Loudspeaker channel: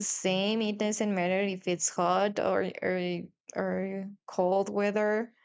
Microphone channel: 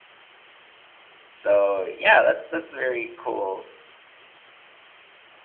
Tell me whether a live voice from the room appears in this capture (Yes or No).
Yes